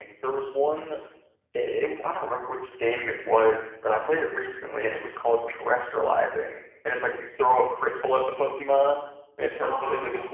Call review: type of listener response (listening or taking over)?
listening